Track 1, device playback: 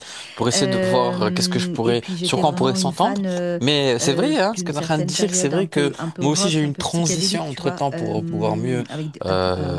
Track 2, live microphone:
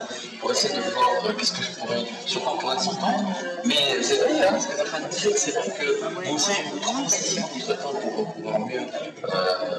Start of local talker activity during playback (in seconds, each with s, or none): 6.0 s